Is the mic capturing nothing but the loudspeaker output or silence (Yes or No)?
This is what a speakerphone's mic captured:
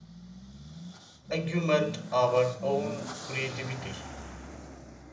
No